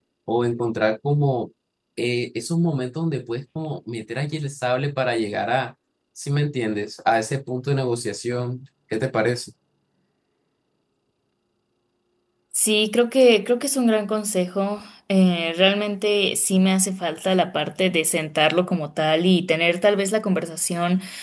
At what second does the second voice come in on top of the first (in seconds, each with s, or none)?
none